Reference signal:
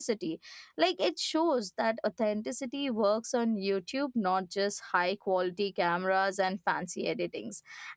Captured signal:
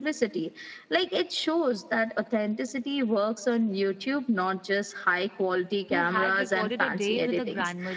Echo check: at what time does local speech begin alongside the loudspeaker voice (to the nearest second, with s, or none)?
6 s